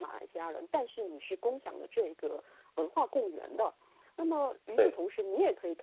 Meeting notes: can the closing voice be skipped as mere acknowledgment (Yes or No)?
Yes